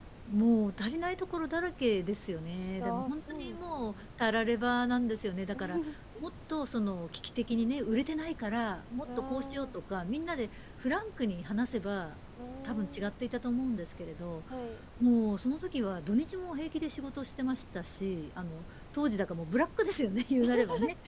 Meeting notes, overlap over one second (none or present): present